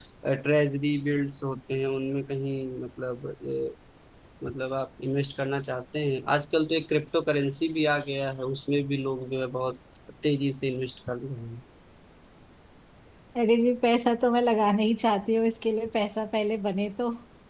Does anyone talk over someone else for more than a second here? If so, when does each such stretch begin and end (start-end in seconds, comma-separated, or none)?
none